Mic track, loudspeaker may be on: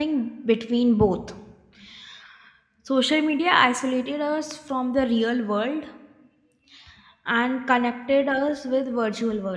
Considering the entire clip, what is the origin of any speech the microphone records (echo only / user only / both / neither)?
user only